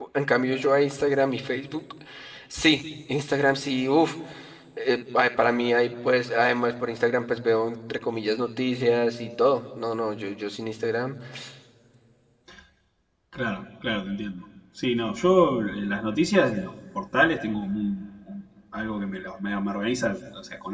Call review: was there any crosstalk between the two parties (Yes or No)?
No